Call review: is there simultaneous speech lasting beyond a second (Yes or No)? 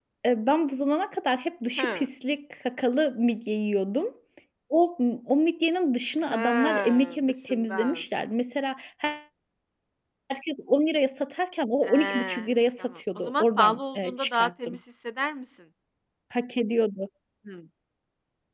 Yes